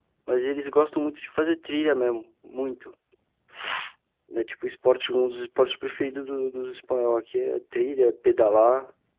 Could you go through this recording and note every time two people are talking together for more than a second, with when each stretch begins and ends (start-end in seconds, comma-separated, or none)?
none